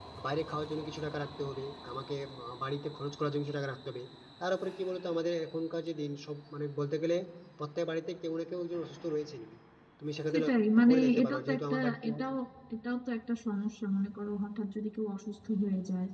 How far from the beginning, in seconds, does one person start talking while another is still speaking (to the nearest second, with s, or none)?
10 s